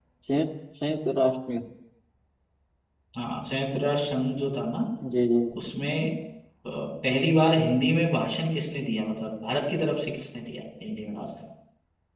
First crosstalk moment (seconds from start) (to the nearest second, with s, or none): none